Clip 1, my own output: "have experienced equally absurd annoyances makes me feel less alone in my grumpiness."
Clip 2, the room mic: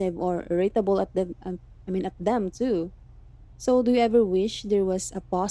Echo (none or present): none